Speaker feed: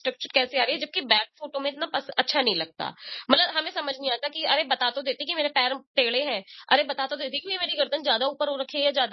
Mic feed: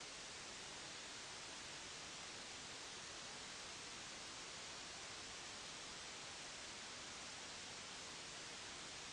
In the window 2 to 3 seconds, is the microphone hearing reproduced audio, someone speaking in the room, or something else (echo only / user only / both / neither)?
neither